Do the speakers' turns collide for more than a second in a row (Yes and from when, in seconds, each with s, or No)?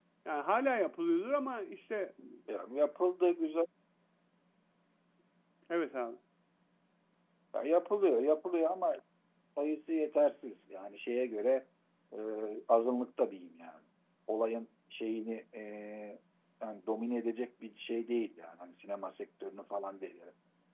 No